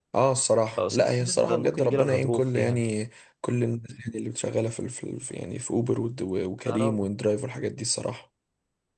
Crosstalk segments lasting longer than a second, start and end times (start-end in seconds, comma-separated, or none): 0.8-2.8